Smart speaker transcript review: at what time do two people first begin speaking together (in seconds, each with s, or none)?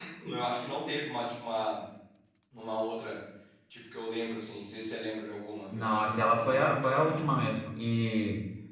5.7 s